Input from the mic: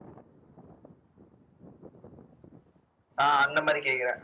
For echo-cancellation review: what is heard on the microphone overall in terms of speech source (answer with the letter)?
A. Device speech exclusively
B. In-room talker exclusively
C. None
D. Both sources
B